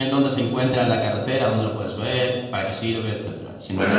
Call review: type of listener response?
taking over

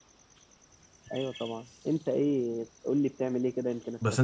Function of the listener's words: taking over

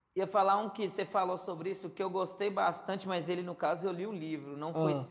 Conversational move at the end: listening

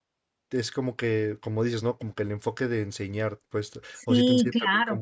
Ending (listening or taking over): taking over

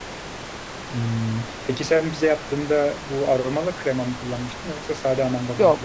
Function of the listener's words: taking over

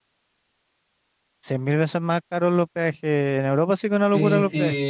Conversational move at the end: taking over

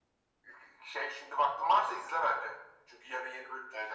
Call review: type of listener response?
taking over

